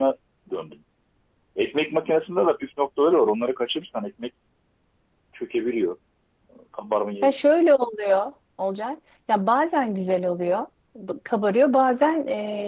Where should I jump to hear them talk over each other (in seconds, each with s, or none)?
none